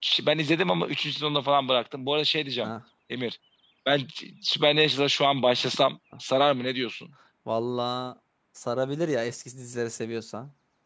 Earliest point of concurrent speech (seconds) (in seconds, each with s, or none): none